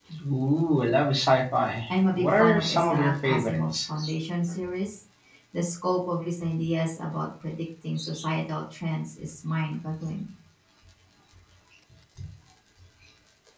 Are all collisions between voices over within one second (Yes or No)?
No